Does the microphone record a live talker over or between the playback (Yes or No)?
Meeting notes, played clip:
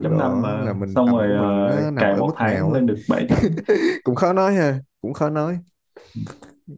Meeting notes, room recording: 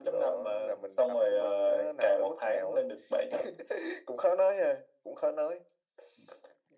No